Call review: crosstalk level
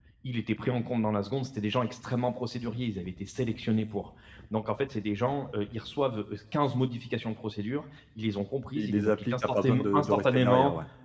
present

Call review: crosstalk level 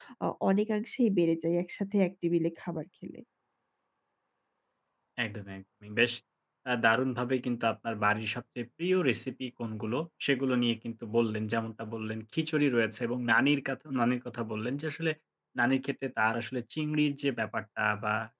none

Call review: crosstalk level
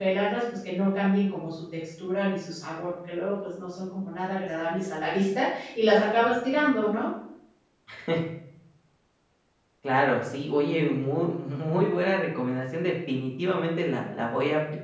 none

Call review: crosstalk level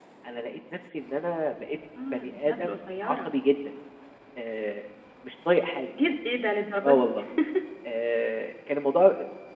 present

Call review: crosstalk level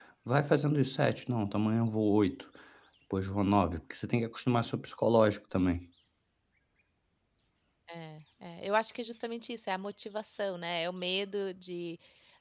none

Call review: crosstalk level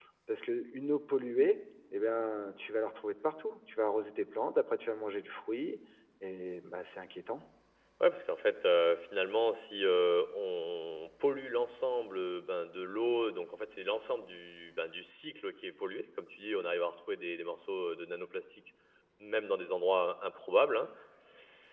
none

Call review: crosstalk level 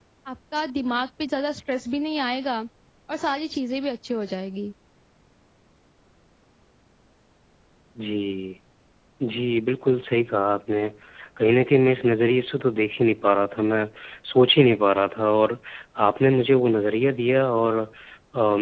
none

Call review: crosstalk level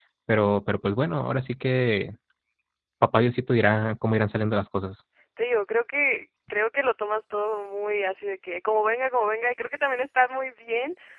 none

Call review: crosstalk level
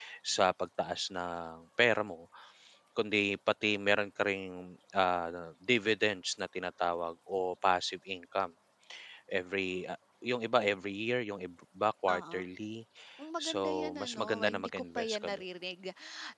present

